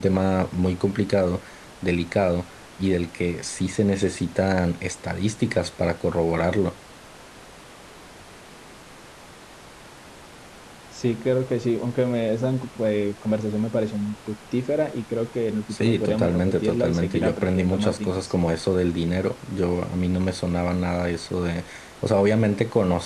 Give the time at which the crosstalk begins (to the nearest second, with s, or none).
16 s